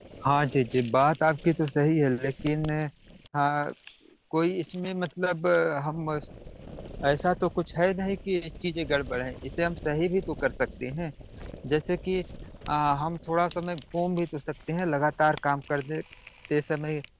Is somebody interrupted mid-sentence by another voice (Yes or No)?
No